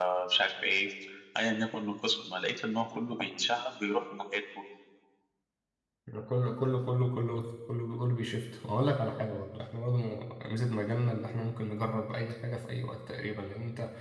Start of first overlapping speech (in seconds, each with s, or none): none